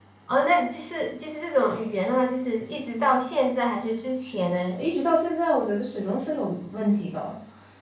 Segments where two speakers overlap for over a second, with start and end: none

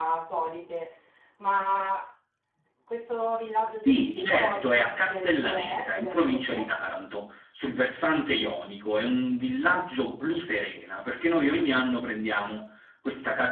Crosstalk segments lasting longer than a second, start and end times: 3.8-6.7

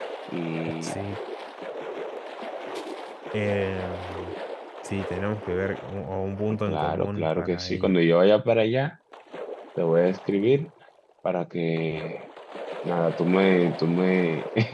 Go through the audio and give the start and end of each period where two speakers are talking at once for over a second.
6.7-8.0

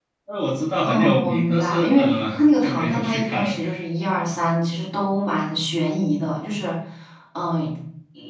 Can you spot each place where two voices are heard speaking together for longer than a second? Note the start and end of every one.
0.8-3.6

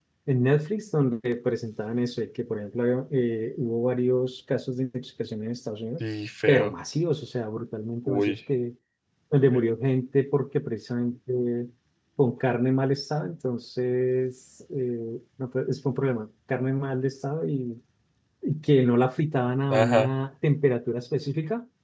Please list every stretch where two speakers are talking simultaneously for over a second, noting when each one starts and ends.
none

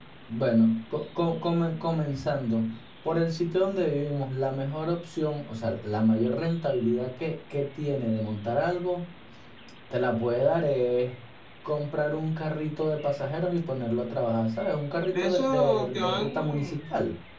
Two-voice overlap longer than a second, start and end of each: 15.1-16.8

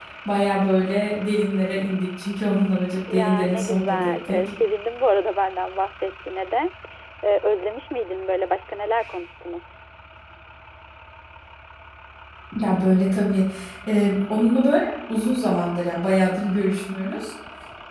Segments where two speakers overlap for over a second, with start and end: 3.1-4.5

